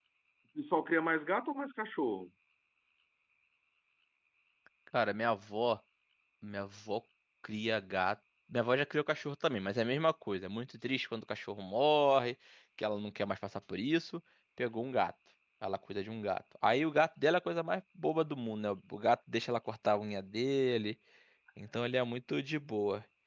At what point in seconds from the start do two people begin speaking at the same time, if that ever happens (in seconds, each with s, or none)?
none